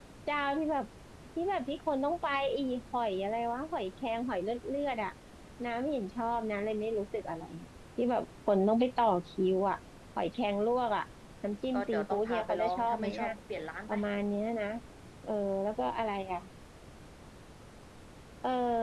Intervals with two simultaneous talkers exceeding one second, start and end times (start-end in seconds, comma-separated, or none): 11.7-13.3